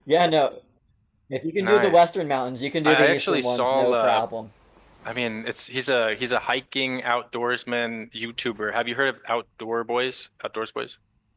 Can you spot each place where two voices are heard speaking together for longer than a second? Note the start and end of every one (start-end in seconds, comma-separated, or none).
2.8-4.2